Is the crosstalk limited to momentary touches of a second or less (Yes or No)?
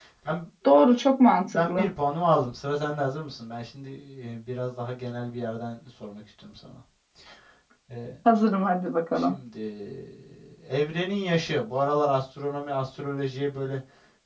Yes